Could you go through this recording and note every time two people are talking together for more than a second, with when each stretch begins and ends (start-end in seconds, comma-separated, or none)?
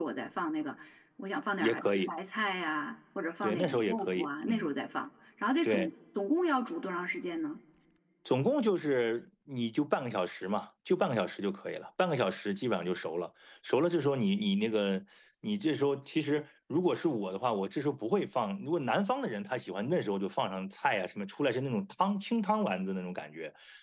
3.4-4.7